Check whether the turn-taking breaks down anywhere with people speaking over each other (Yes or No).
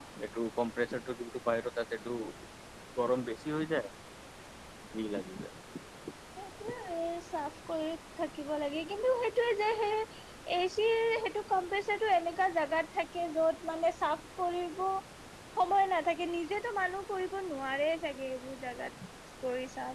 No